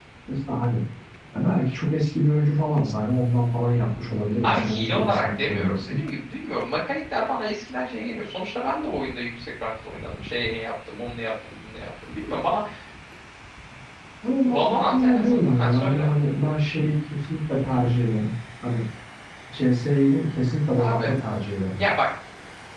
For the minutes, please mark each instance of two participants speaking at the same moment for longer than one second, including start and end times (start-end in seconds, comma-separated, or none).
4.4-6.0, 14.5-16.1